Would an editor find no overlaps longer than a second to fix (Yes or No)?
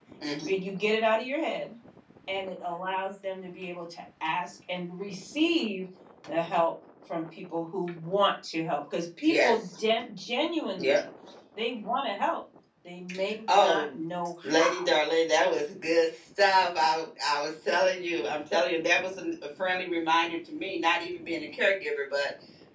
Yes